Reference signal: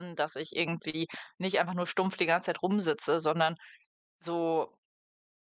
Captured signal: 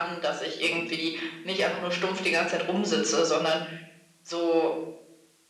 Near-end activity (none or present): none